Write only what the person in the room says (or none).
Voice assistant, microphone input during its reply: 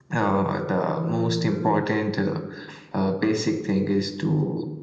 And uh,